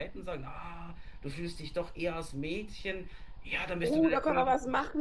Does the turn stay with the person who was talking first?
No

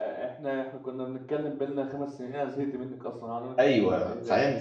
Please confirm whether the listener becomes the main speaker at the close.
Yes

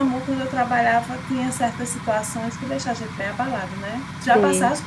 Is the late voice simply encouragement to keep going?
Yes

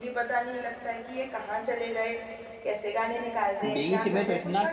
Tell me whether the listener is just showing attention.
No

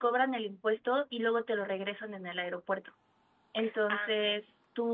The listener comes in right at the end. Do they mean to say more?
No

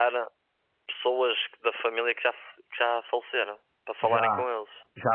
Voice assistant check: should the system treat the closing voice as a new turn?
Yes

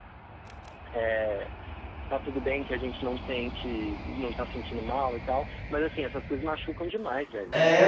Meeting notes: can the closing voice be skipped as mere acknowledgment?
No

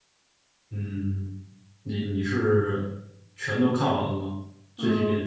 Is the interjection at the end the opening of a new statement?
Yes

